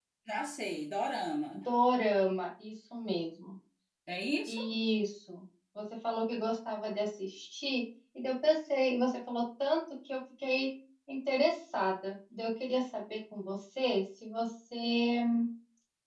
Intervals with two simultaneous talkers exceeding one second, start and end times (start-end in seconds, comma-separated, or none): none